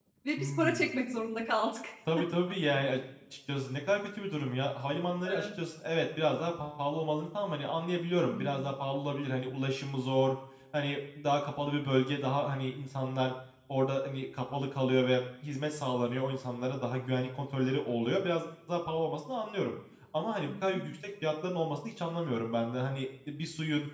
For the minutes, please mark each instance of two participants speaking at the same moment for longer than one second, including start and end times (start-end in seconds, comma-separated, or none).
none